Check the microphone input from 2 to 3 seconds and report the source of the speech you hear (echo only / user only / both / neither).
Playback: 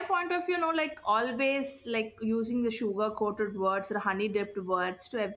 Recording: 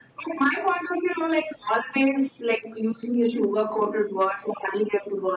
echo only